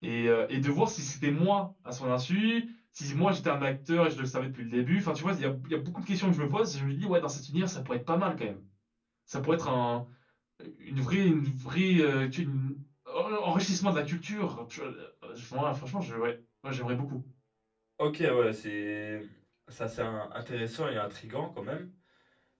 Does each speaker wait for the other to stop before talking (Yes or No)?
Yes